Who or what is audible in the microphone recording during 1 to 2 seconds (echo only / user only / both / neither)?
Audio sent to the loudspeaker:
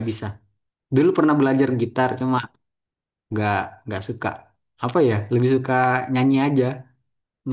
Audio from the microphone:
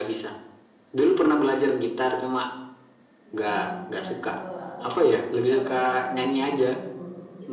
echo only